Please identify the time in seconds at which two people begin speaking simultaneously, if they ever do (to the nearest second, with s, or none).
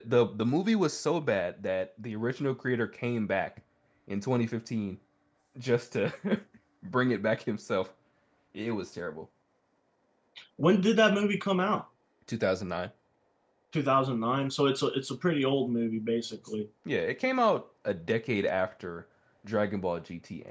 none